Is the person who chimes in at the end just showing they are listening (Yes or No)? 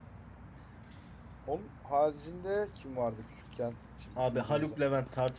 No